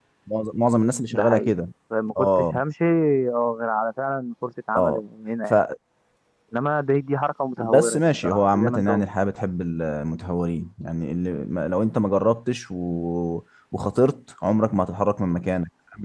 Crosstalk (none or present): present